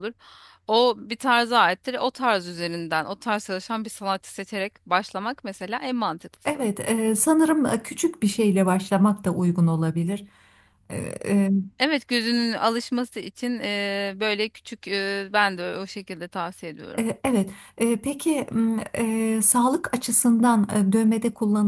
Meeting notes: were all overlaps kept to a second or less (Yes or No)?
Yes